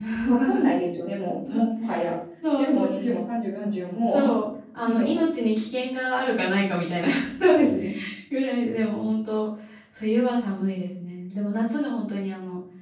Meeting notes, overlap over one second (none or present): none